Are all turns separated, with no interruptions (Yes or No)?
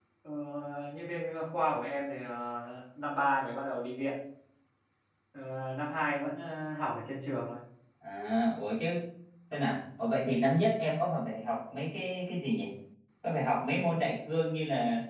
Yes